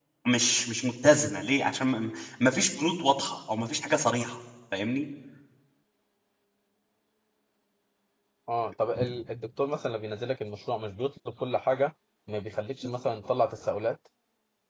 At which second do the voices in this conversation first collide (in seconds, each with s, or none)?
none